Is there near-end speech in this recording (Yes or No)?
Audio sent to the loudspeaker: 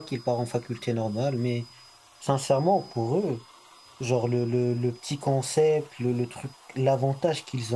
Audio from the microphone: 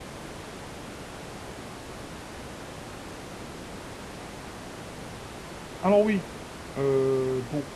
Yes